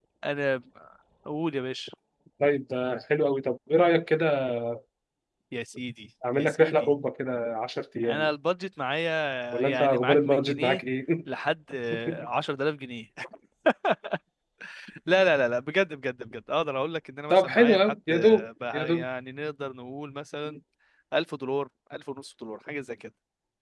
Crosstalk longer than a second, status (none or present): present